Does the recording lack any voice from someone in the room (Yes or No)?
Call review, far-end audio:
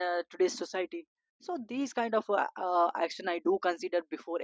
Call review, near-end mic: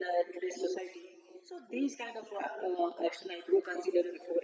Yes